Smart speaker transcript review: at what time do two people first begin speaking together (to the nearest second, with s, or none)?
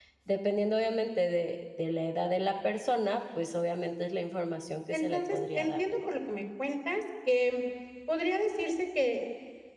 5 s